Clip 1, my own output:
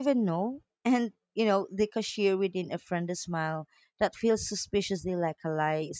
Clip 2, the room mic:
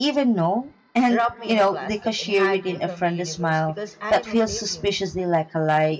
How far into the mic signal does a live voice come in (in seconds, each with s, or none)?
1.1 s